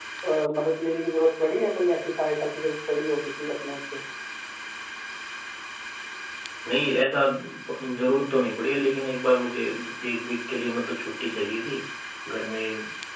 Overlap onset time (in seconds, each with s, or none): none